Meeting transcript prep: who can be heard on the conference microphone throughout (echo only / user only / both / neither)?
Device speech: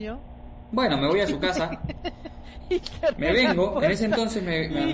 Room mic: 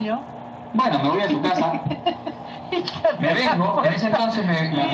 echo only